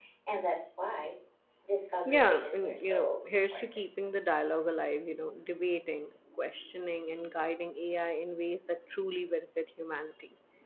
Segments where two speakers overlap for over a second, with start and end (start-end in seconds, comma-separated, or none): 2.0-3.6